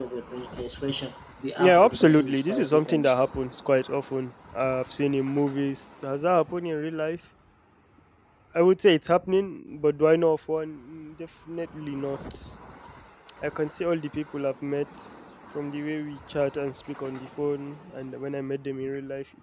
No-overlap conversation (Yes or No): No